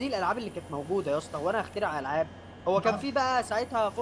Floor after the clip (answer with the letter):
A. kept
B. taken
A